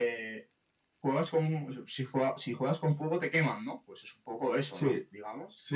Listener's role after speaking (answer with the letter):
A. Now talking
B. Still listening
A